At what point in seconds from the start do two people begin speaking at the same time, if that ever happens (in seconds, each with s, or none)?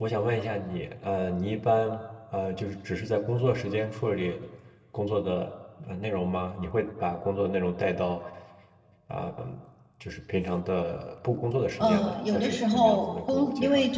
11.8 s